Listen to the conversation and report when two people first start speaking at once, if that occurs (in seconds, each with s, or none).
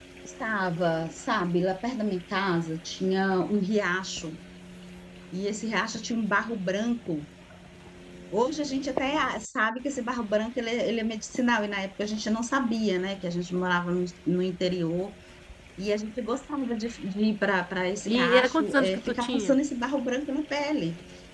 18.1 s